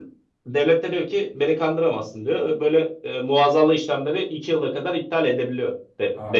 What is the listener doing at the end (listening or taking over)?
taking over